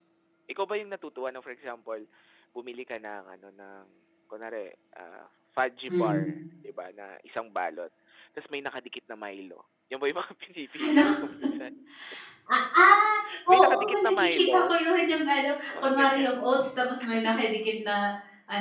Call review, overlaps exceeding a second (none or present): present